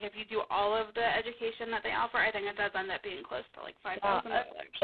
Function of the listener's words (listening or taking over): taking over